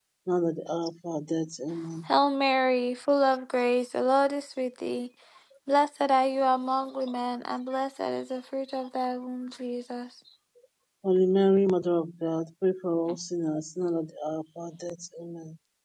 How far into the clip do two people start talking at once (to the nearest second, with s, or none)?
none